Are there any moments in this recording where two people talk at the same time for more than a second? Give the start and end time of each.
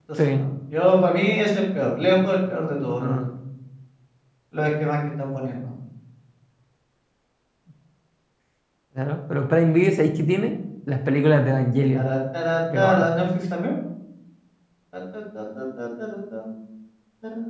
none

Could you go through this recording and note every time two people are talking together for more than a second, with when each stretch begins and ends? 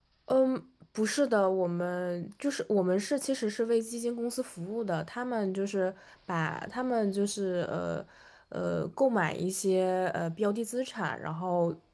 none

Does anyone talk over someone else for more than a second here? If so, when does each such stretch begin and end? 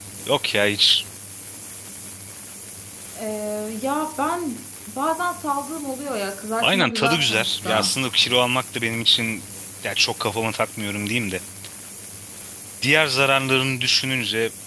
6.6-8.0

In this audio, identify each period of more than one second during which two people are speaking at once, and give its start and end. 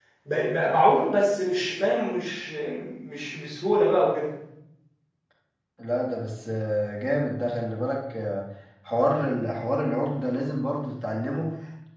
none

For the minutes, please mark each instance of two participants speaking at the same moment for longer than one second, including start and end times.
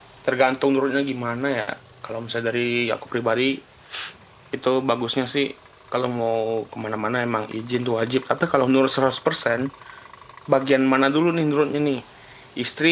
none

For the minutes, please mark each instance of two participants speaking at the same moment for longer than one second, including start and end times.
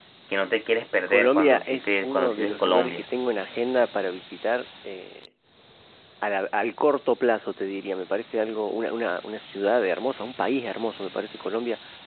1.1-3.0

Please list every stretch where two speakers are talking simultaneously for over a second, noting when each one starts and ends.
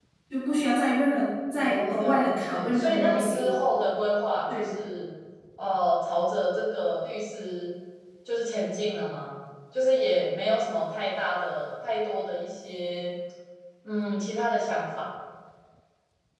1.6-3.5

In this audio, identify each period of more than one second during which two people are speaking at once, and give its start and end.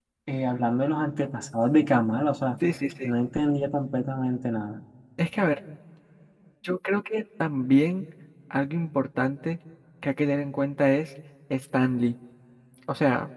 none

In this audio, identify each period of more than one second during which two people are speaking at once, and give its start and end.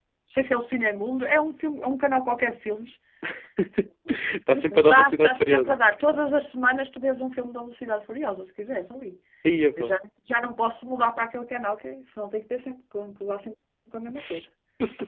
4.5-5.8

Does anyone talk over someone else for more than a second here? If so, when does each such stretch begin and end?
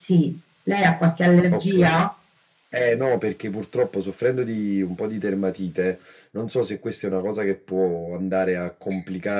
none

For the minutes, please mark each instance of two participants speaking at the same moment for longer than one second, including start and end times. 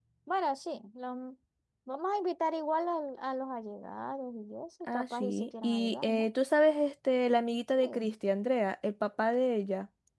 4.9-6.3

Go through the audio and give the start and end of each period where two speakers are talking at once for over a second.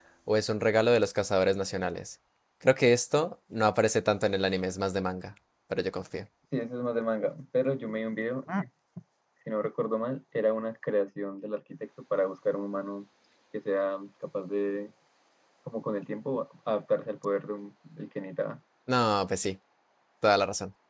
none

